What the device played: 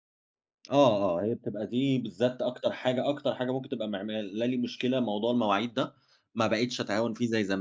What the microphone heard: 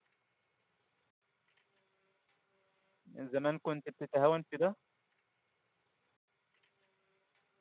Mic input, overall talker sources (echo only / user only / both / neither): user only